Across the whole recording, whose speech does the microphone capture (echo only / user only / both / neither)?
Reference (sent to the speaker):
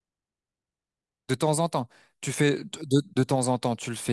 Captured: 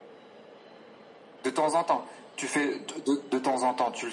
echo only